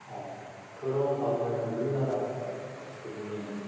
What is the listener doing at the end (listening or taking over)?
listening